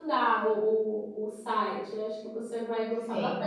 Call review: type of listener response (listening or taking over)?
listening